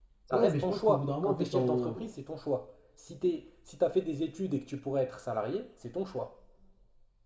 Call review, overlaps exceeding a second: present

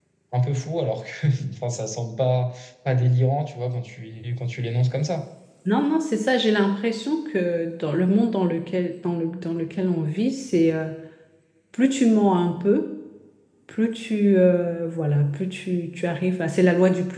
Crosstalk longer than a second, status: none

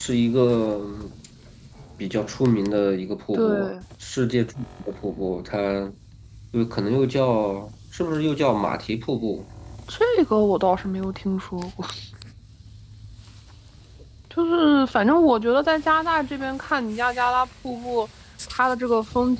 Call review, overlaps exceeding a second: none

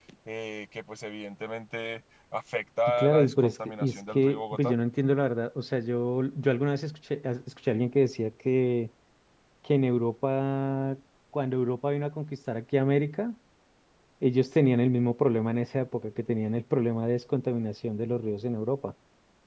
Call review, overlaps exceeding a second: present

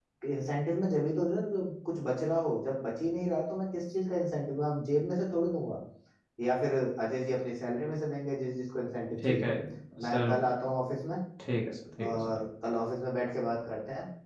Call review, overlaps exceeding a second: none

